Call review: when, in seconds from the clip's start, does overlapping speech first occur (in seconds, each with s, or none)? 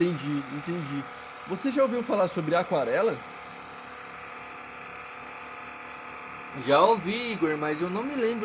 none